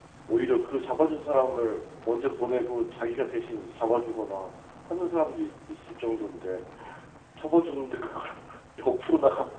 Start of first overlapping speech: none

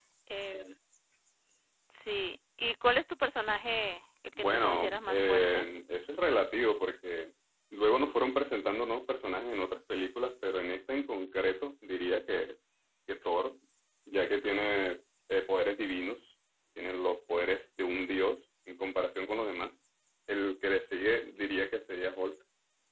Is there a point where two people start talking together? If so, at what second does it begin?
4.4 s

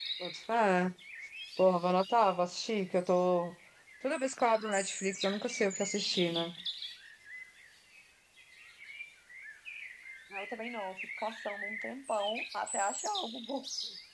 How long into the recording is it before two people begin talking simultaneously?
none

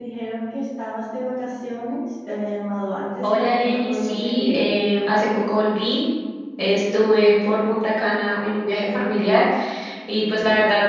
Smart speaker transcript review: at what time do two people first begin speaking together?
3.2 s

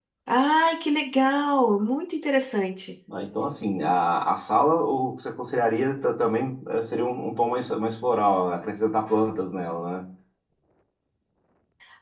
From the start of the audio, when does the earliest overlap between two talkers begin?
none

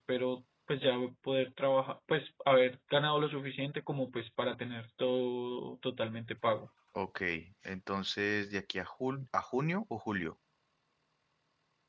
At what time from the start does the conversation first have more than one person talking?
none

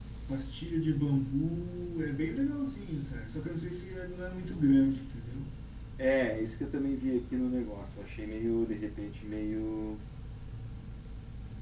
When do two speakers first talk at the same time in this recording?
none

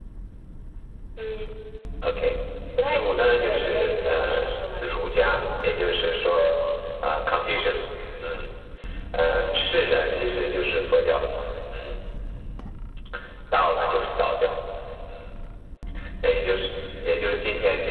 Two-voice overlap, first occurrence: 2.8 s

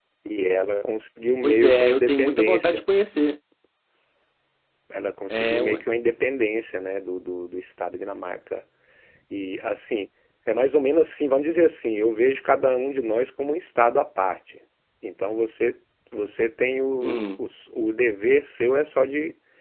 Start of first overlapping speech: 1.4 s

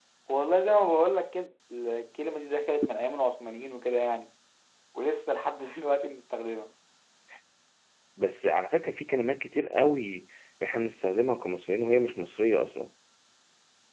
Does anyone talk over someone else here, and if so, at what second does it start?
none

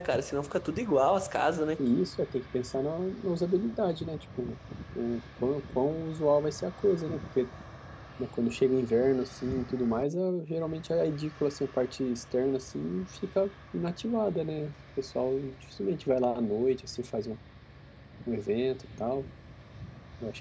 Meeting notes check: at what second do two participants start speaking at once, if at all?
none

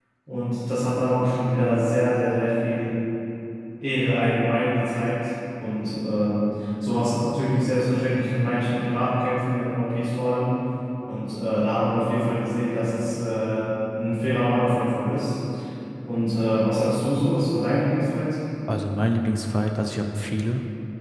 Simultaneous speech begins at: none

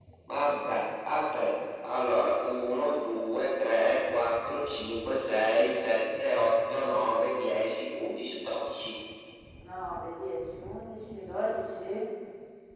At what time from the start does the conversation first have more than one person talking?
none

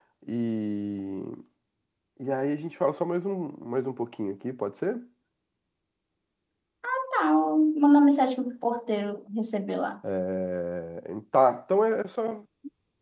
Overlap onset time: none

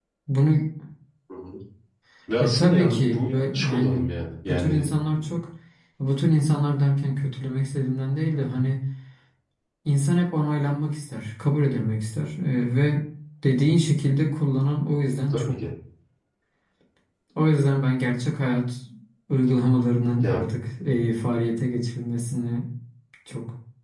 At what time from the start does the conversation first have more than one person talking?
2.4 s

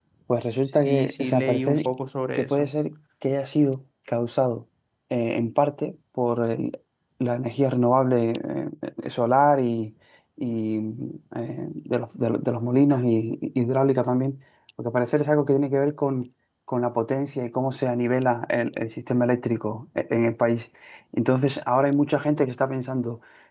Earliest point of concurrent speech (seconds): 0.7 s

